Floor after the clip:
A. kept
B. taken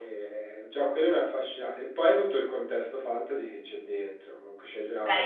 B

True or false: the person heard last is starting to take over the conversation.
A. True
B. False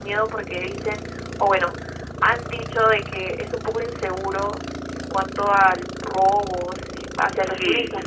A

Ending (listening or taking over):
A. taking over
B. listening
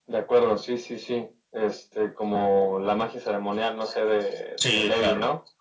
A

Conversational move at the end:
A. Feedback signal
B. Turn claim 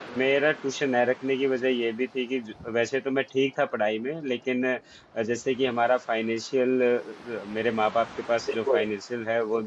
A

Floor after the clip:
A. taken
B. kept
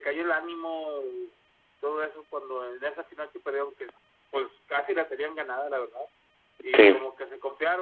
B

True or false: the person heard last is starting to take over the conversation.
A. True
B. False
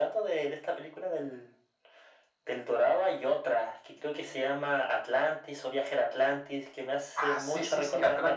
A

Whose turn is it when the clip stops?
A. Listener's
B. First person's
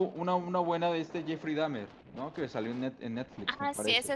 A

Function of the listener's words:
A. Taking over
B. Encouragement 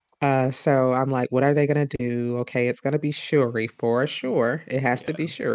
B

